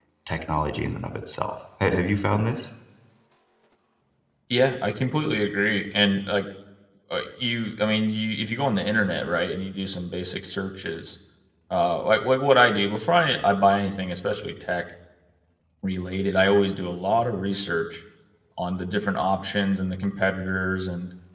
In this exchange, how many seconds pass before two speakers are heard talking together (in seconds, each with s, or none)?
none